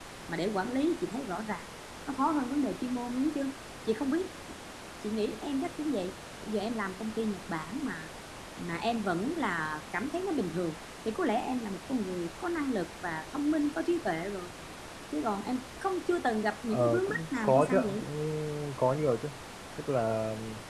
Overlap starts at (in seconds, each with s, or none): 16.7 s